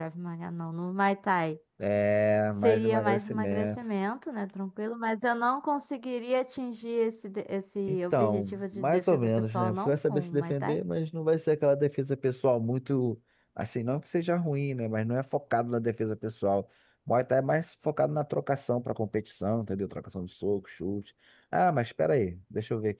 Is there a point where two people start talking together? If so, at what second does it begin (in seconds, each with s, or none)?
2.6 s